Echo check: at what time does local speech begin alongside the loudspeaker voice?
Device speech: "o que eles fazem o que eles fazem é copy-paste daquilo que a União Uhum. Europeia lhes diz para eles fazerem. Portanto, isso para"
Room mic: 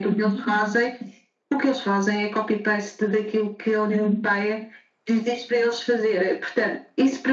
none

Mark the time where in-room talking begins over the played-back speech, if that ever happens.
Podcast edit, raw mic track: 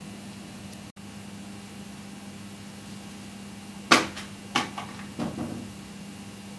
none

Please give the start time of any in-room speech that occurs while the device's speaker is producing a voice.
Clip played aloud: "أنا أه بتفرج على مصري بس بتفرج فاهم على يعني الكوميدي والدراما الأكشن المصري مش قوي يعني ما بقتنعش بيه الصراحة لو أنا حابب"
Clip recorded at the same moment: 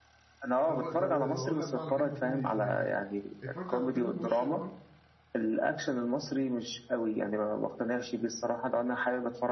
0.6 s

